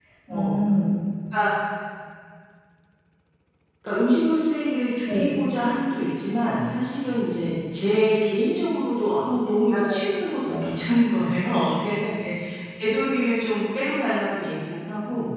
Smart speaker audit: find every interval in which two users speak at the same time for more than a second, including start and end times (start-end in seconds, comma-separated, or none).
none